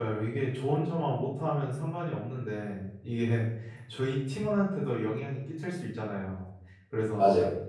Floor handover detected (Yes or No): No